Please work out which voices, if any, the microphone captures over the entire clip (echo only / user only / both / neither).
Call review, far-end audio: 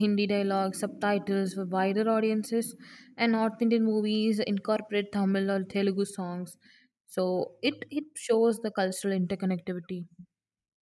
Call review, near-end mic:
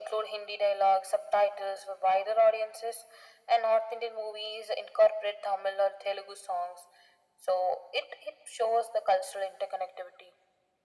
echo only